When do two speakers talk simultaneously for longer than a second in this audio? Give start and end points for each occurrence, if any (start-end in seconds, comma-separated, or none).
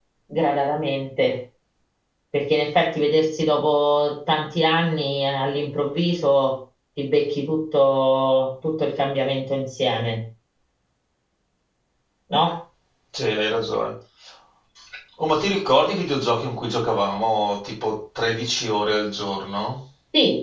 none